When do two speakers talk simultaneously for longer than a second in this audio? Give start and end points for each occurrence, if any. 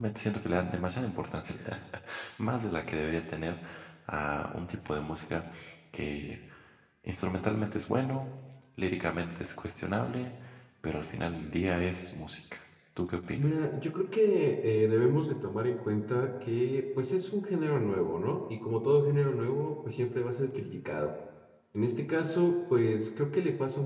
none

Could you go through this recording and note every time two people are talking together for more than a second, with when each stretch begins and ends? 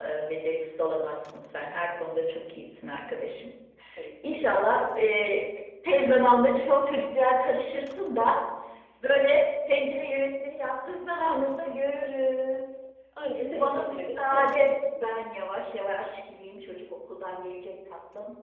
13.3-15.1

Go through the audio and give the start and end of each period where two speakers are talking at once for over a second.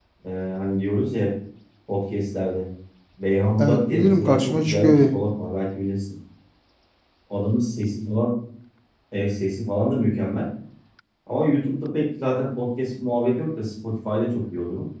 3.6-5.0

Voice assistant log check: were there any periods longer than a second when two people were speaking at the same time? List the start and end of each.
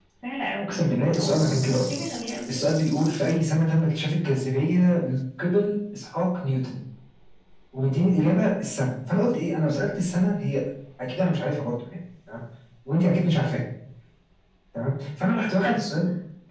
0.6-2.0

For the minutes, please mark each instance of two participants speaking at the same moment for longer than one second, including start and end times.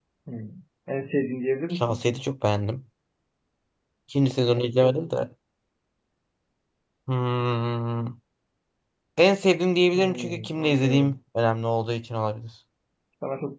9.9-11.2

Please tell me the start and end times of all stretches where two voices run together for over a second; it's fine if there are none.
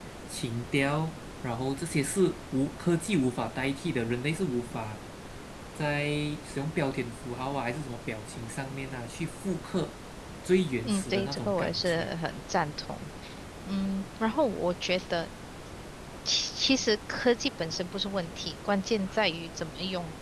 10.8-12.1

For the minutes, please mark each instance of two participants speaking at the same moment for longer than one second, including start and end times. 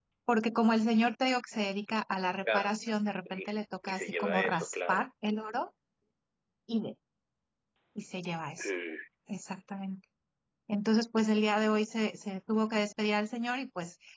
3.2-5.0

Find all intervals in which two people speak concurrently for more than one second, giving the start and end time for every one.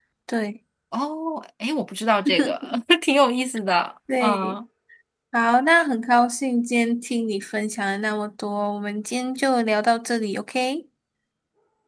none

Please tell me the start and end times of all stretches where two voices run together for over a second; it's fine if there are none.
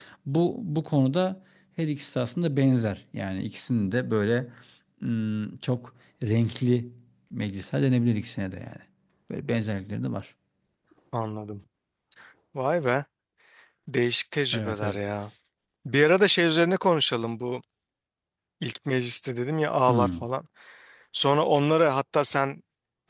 none

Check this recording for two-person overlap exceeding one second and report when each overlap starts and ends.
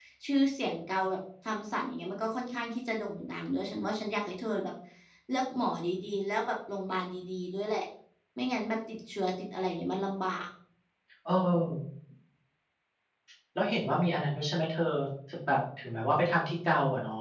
none

